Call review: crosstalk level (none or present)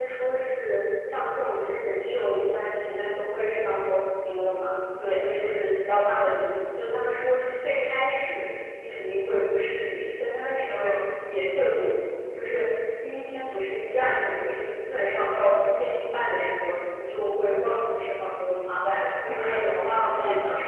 present